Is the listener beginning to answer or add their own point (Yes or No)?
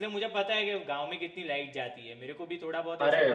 Yes